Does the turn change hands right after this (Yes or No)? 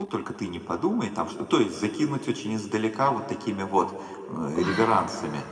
No